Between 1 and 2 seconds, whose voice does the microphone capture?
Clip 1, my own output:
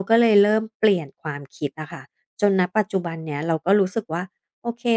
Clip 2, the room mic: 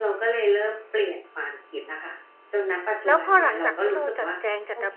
echo only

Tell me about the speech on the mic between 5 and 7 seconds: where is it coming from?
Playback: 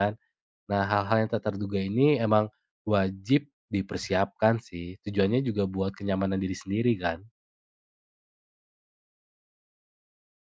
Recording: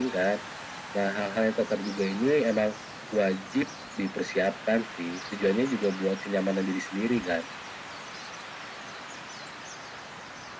echo only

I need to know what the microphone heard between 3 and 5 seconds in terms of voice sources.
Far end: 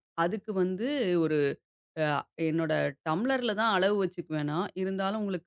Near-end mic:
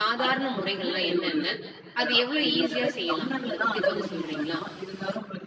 both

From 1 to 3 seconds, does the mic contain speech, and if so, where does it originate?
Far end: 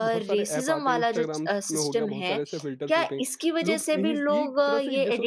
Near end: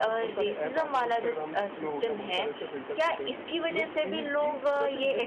echo only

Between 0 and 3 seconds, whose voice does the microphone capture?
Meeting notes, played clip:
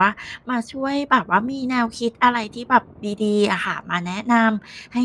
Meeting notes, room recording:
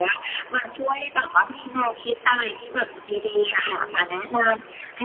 echo only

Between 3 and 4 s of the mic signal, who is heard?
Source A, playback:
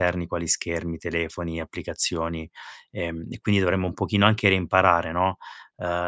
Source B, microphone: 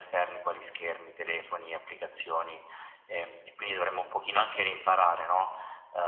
echo only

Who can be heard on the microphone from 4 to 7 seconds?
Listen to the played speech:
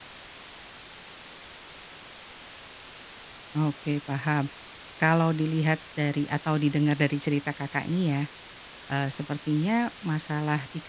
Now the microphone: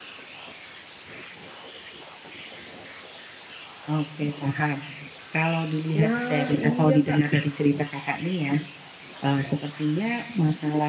both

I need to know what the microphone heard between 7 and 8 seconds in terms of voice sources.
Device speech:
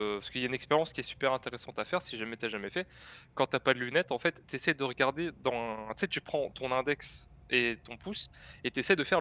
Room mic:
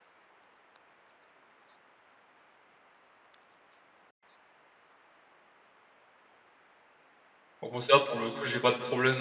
user only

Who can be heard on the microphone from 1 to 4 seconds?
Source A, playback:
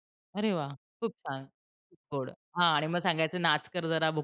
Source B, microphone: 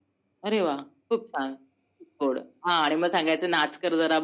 echo only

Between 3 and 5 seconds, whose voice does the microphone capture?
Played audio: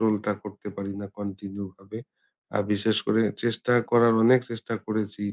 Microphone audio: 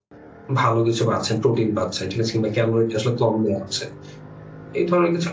user only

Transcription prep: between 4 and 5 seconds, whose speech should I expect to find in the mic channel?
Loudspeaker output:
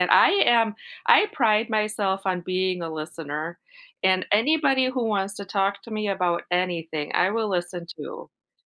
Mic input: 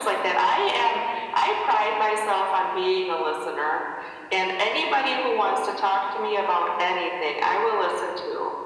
echo only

